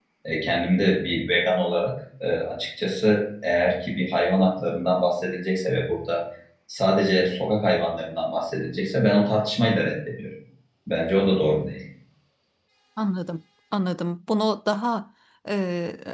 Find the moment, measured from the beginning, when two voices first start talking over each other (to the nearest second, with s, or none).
none